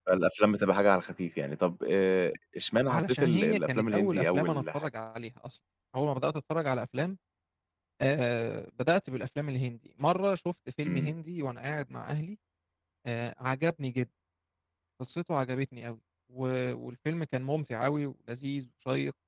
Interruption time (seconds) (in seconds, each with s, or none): 2.9 s